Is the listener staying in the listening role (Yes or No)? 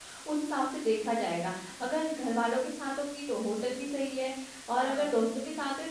Yes